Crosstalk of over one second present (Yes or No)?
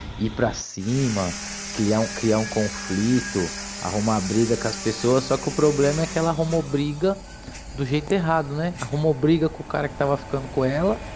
No